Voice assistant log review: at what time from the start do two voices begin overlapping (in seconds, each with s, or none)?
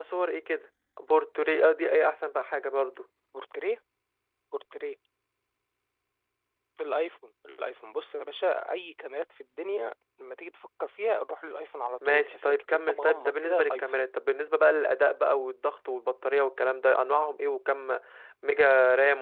12.0 s